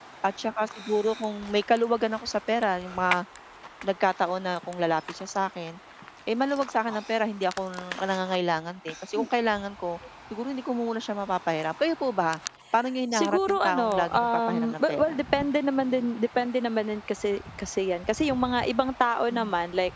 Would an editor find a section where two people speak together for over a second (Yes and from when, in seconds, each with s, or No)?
Yes, from 13.1 s